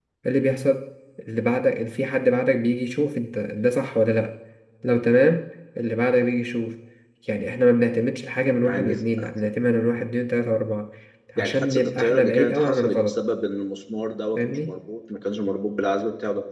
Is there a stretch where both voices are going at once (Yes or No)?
Yes